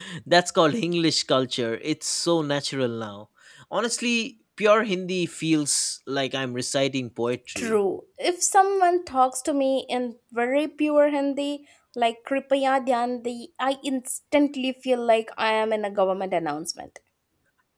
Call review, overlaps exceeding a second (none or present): none